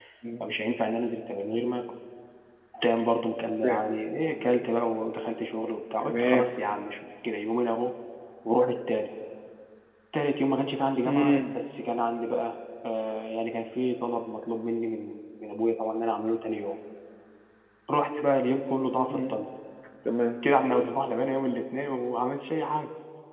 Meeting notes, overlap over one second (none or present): none